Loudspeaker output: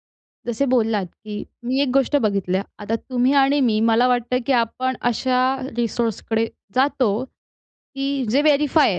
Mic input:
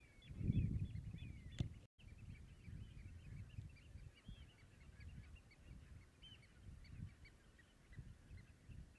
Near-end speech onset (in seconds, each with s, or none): none